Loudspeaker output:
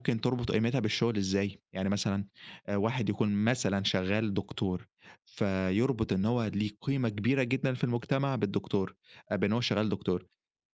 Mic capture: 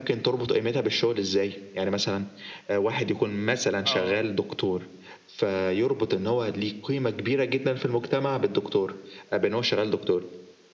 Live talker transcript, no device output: آه،

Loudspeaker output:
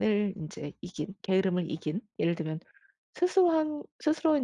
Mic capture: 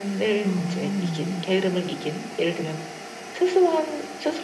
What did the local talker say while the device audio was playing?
아 네.

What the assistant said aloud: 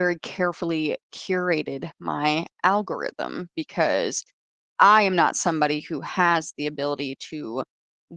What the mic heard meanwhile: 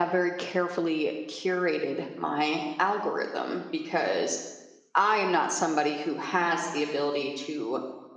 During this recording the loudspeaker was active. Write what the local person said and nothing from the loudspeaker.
none

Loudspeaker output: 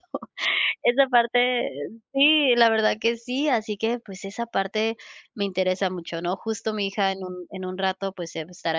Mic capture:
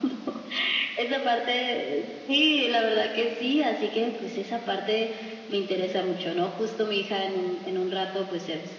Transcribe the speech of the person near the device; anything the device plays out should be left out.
none

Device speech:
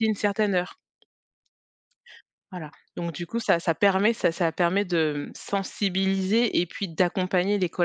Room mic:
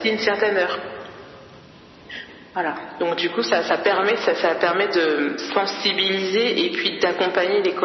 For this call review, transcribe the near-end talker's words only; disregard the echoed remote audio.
none

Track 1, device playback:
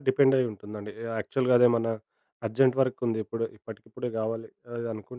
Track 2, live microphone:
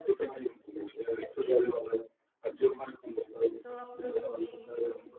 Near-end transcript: సో, అప్పుడు మీ

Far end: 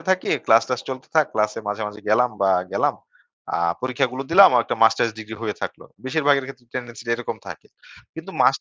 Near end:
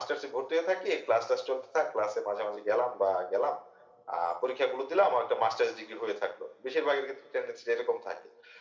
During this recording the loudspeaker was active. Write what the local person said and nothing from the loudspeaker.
none

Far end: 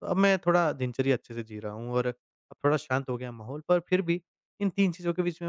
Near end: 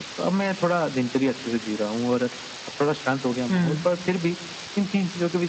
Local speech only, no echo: हुँ,

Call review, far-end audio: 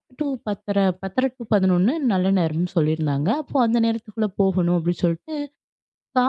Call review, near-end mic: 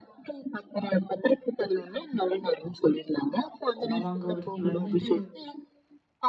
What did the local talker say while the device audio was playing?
அவ அங்க ஒருத்தி வந்துட்டு

